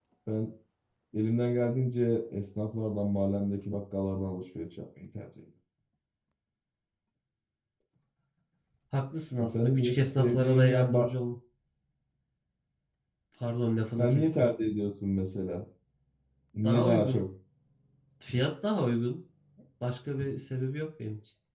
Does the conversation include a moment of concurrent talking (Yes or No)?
Yes